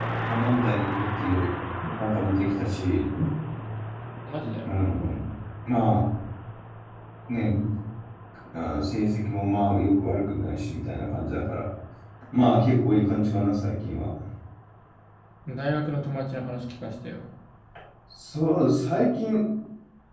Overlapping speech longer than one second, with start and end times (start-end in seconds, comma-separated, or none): none